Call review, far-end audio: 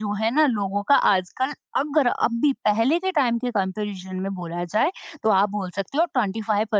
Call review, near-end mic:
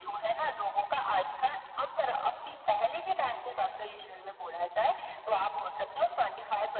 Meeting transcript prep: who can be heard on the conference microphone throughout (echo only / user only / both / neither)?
echo only